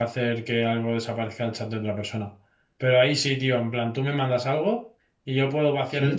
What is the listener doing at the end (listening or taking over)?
listening